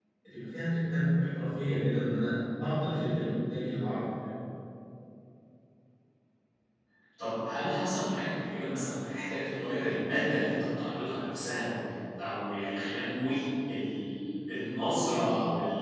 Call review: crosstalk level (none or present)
none